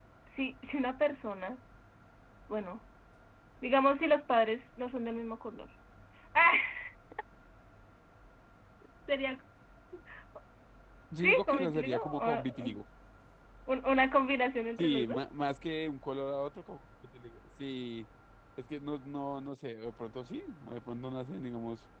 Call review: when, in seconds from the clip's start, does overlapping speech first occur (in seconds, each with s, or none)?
11.2 s